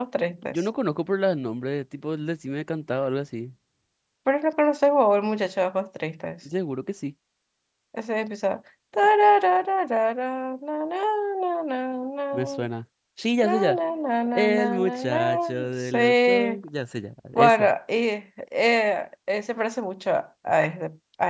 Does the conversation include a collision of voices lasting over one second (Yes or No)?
Yes